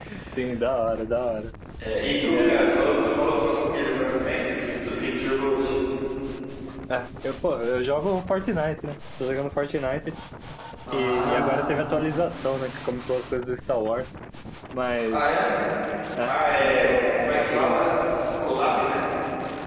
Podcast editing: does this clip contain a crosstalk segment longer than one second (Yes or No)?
Yes